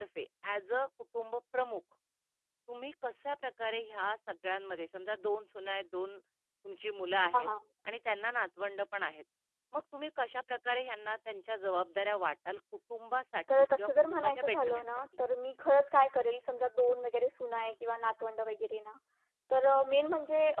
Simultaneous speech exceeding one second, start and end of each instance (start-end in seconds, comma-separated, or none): 13.6-14.9